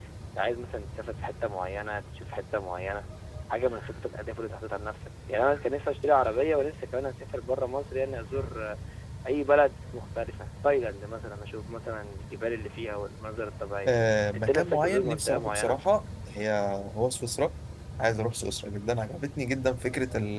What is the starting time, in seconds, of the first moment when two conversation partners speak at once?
14.3 s

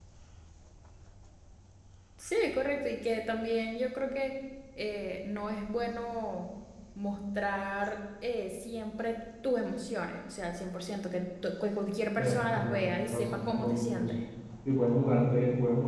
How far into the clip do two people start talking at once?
12.2 s

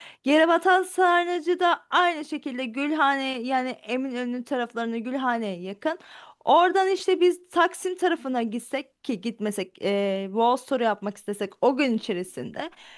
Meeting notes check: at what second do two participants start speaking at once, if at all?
none

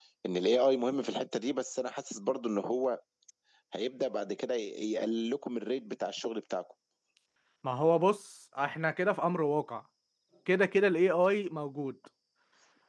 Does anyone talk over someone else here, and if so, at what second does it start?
none

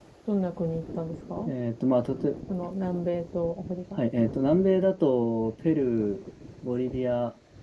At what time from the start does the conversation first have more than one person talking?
none

